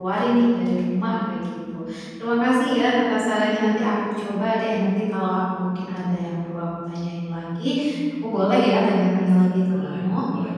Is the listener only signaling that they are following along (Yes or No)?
No